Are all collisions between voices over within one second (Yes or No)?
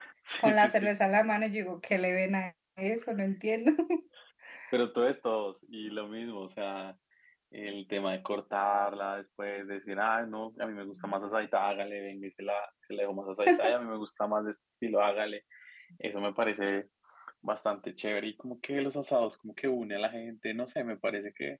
Yes